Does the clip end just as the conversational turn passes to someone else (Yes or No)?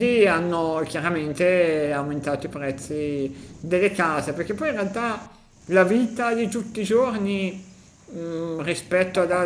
No